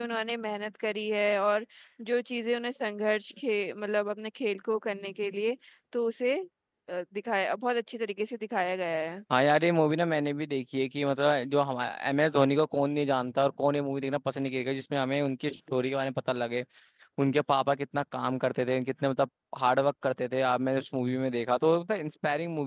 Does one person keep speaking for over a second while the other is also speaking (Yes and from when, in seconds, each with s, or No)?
No